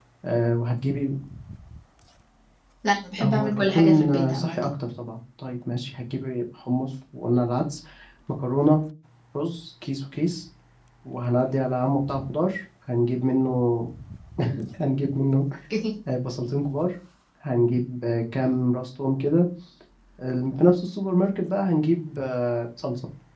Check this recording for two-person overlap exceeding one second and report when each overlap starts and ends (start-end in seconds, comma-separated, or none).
3.2-4.6